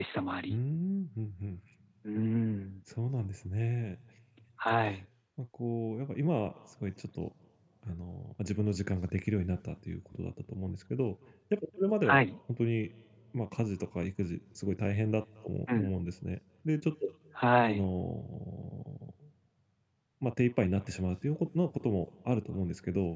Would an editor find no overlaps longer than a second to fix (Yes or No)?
Yes